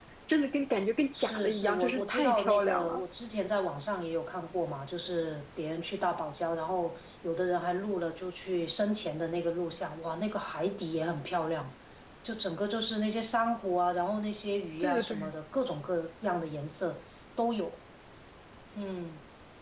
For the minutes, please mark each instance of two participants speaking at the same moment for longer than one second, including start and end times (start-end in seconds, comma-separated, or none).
1.2-3.0